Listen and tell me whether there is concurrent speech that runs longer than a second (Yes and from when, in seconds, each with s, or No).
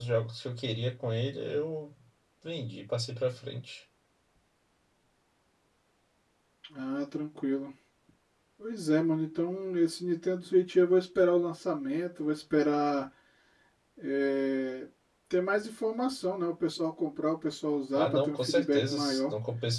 Yes, from 17.9 s